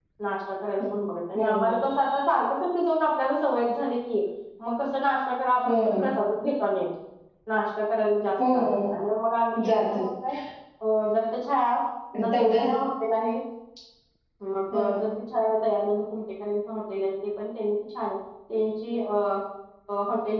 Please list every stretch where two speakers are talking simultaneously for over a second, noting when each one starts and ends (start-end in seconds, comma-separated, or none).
none